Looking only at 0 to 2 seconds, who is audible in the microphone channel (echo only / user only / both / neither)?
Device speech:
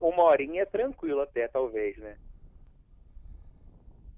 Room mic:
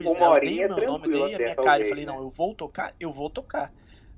both